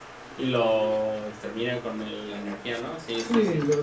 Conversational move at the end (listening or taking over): taking over